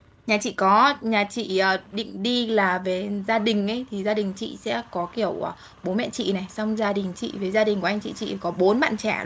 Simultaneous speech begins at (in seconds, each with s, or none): none